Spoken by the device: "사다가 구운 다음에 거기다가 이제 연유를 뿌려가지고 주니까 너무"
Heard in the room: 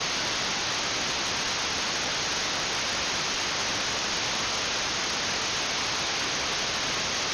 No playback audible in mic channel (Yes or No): Yes